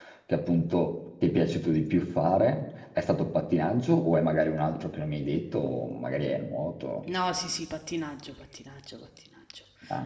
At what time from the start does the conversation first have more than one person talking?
none

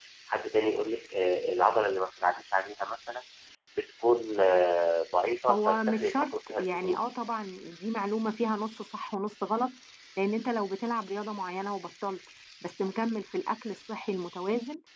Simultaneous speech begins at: 5 s

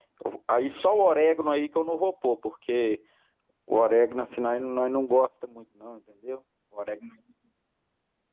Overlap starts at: none

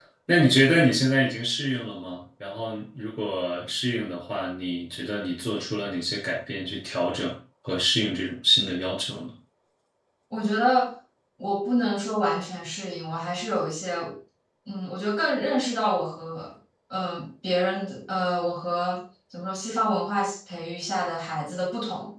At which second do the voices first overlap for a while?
none

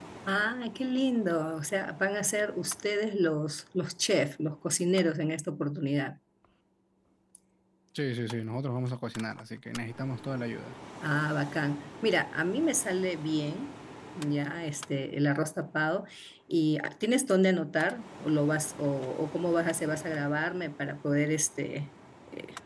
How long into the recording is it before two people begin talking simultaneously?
none

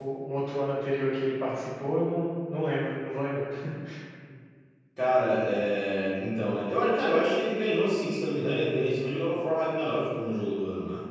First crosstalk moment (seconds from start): none

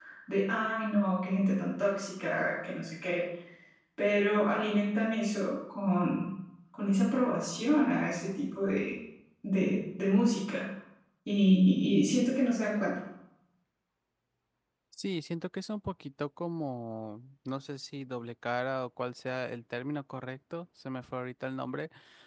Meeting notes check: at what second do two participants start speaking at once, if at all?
none

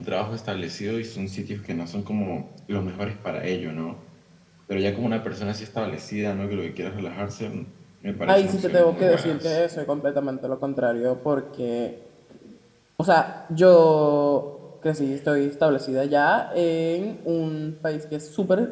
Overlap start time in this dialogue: 8 s

